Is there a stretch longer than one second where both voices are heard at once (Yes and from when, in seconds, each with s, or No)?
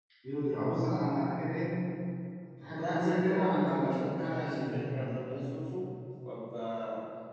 Yes, from 2.7 s